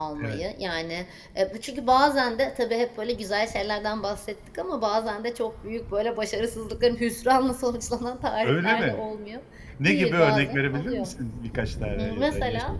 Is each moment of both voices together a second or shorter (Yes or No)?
No